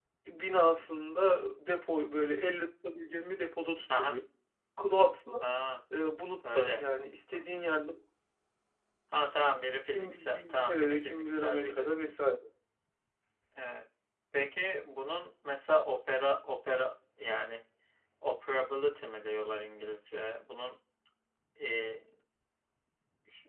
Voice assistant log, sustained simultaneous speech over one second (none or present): present